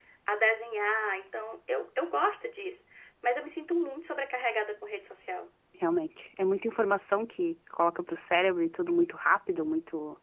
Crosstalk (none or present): none